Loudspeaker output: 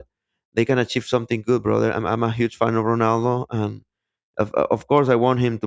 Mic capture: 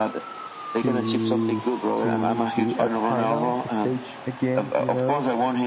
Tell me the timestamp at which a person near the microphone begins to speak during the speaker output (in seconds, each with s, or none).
0.7 s